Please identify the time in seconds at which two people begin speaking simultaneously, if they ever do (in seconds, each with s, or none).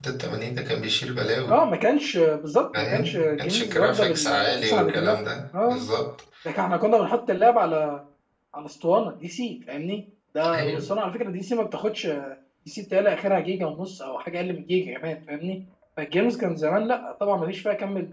2.7 s